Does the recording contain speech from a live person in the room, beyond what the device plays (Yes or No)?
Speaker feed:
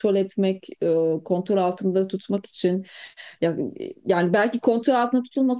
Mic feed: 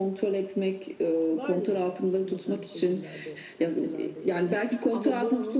Yes